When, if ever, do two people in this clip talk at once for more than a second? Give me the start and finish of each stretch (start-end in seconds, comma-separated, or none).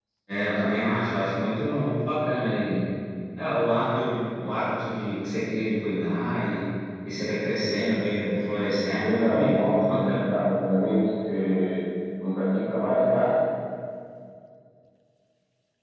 9.0-10.3